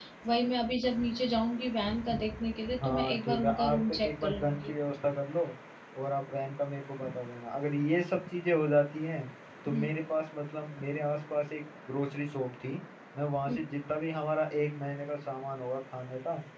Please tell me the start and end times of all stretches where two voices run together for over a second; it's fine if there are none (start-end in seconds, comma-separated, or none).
2.8-4.7